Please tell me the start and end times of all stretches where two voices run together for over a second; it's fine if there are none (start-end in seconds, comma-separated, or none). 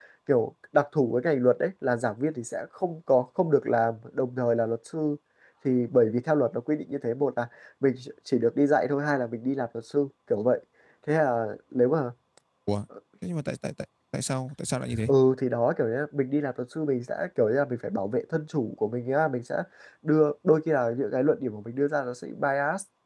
none